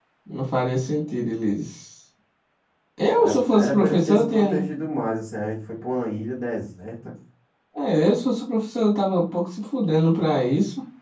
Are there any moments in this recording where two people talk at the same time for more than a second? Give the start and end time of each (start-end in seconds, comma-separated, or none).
3.2-4.6